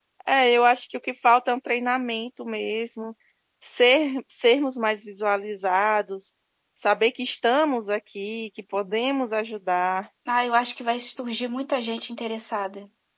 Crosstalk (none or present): none